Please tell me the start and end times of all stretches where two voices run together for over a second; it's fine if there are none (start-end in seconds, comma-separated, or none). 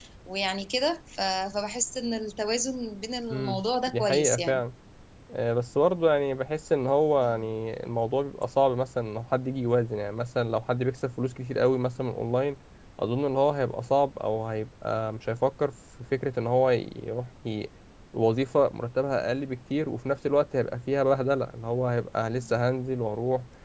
3.3-4.6